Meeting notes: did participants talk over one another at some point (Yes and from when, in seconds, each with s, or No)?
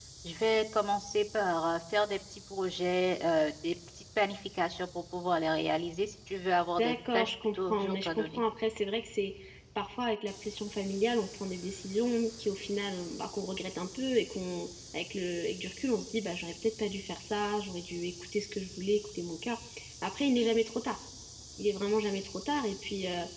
Yes, from 6.8 s